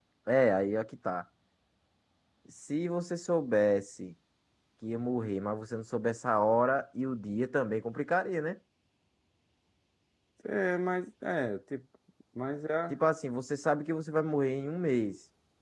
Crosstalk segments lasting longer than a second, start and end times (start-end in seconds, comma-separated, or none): none